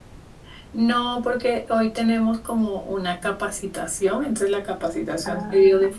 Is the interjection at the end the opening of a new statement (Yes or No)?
No